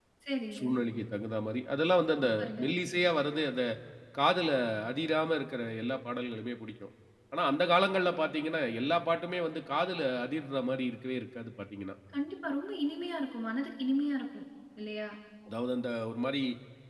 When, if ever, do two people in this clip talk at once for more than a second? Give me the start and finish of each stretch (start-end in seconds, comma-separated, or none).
none